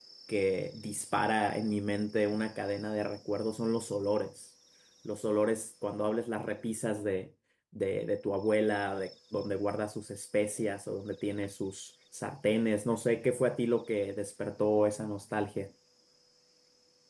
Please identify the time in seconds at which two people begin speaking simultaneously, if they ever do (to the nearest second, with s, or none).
none